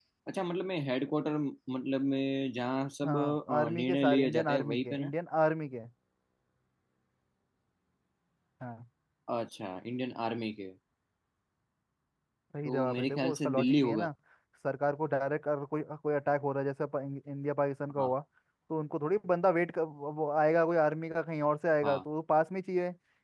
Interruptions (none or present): present